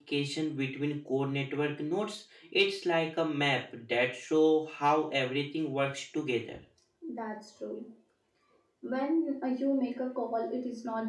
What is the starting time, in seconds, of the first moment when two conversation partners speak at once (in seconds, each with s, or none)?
none